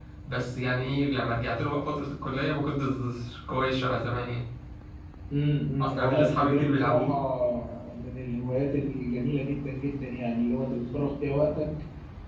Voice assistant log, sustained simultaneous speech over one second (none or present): present